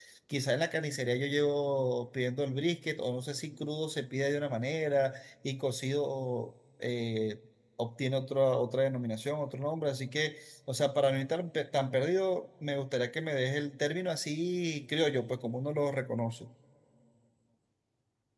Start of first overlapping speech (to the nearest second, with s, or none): none